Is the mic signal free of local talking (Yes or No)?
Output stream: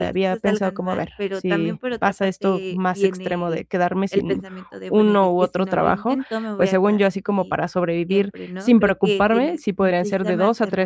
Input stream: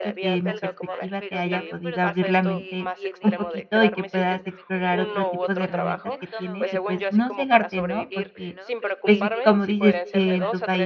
No